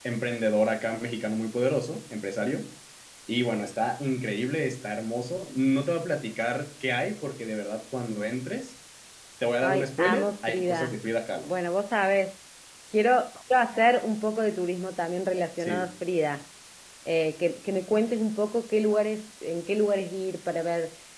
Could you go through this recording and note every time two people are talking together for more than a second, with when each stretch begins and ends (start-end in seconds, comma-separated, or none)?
9.6-11.0